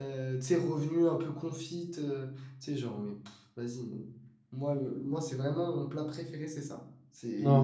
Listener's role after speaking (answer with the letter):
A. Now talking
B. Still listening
A